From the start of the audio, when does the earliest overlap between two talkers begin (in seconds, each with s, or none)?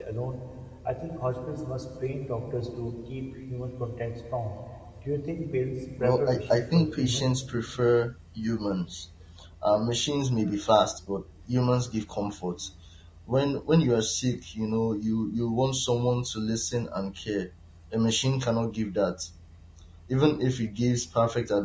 6.0 s